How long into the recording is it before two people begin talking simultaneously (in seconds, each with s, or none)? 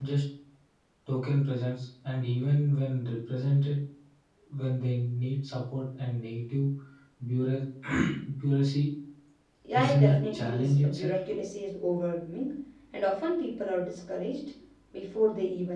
9.7 s